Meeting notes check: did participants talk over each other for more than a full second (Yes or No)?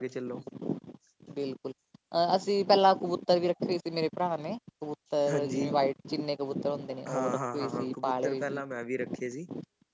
Yes